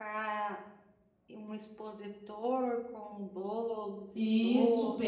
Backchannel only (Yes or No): No